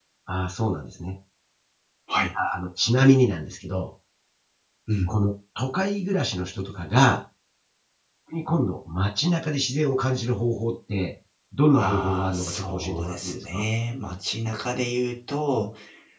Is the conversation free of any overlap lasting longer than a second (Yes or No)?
No